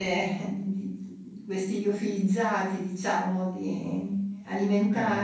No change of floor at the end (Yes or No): Yes